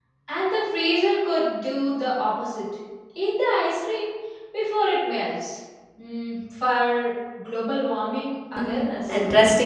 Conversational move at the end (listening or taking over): taking over